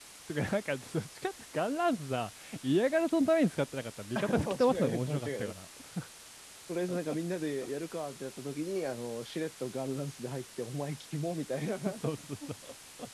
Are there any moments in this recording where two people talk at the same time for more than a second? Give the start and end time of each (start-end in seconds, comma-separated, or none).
4.2-5.5